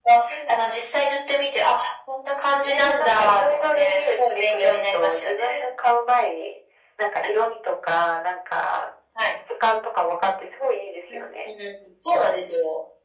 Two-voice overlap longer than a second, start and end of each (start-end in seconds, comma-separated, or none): 2.6-5.7